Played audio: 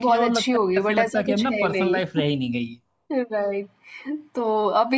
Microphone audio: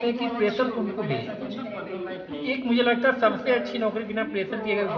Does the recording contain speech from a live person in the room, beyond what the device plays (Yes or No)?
Yes